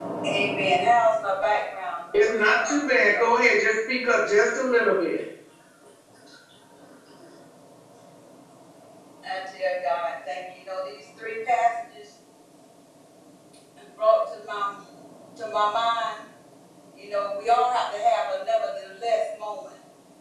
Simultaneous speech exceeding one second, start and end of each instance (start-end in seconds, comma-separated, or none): 2.1-3.6